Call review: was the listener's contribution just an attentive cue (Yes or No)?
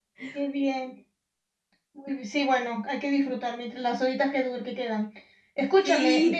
Yes